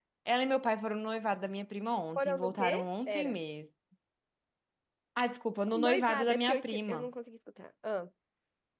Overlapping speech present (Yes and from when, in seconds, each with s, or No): Yes, from 2.2 s